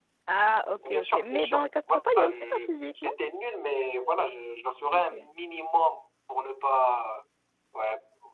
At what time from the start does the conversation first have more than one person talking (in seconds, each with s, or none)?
0.8 s